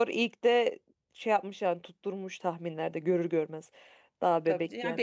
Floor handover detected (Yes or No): Yes